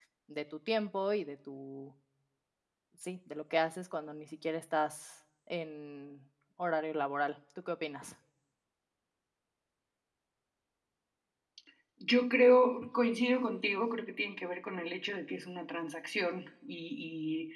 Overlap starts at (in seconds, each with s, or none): none